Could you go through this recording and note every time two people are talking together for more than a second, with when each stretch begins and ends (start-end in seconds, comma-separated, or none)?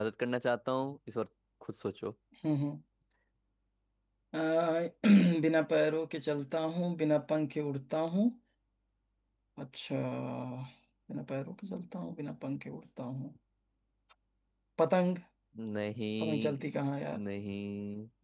none